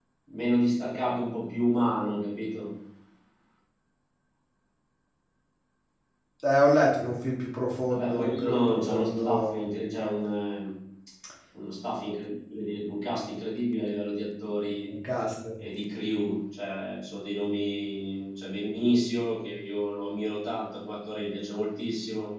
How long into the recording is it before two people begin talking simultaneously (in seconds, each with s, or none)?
7.9 s